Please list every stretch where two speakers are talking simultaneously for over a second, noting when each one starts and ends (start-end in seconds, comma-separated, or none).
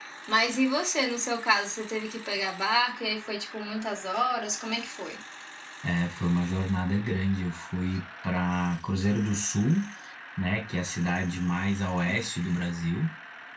none